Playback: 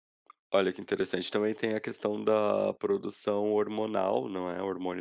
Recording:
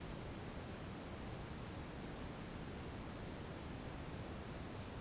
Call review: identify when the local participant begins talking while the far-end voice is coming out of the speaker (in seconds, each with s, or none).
none